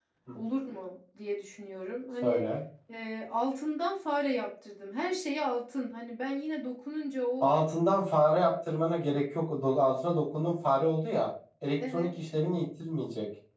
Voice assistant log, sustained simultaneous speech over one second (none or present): none